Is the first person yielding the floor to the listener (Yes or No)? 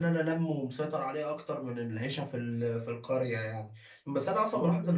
No